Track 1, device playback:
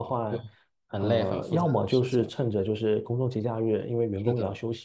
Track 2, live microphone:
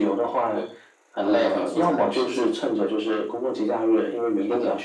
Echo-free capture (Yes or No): No